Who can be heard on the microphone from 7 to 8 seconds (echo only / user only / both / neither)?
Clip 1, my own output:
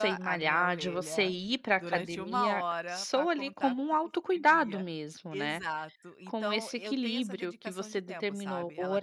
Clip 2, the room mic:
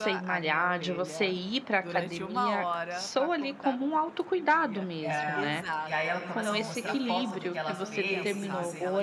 both